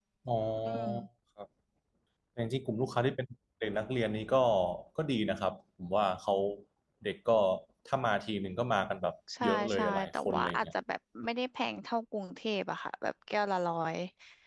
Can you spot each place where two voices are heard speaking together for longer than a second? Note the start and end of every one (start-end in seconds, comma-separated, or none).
9.4-10.7